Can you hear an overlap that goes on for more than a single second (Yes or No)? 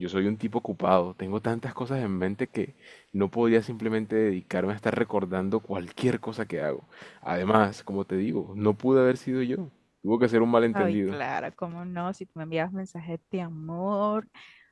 No